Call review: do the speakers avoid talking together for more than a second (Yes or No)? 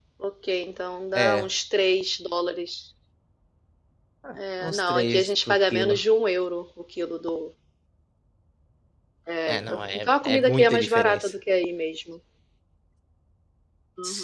No